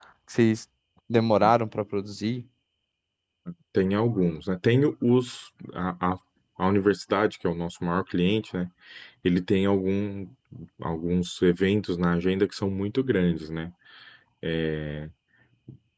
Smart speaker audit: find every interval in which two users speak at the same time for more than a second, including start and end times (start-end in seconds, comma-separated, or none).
none